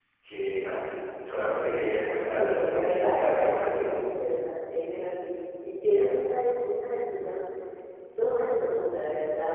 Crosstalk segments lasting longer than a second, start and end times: 2.3-4.0

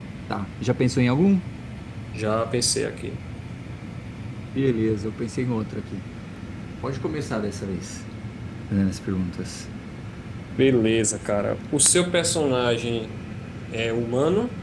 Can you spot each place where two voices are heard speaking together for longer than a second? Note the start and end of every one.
none

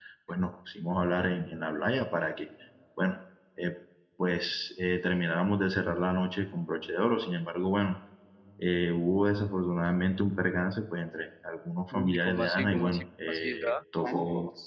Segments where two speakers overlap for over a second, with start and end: 11.9-13.7

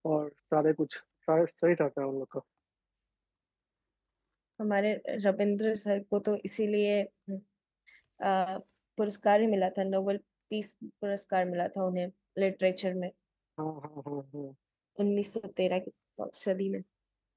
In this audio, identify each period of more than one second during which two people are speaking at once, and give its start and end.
none

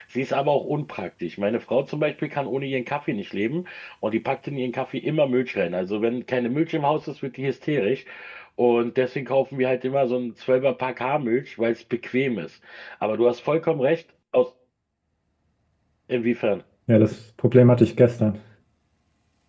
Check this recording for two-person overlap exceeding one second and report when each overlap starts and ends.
none

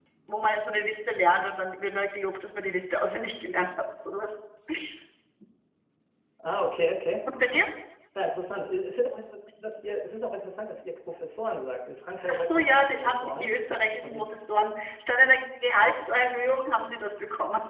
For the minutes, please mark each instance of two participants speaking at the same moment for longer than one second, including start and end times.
12.3-13.5

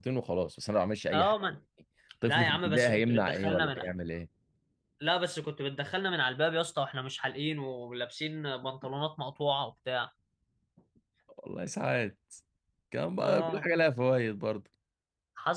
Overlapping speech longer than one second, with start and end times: 2.2-3.8

